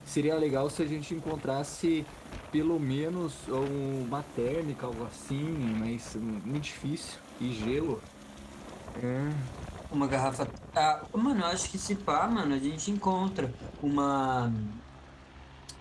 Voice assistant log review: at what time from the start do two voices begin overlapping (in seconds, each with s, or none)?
none